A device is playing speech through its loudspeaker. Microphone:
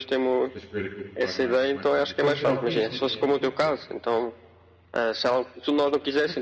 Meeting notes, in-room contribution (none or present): present